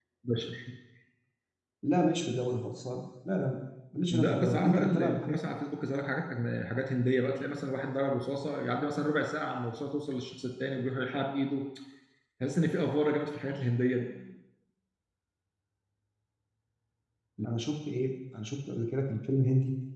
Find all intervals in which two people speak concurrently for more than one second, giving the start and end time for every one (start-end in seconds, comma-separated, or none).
4.1-5.5